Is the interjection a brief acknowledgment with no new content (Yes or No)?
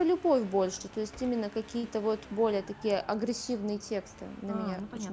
No